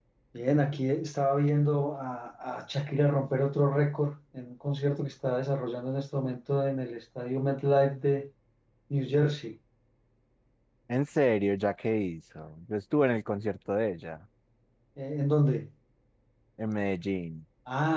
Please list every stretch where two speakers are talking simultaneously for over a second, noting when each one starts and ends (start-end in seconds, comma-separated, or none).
none